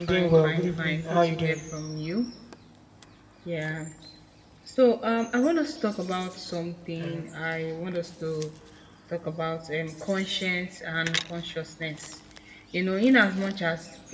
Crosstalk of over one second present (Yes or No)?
Yes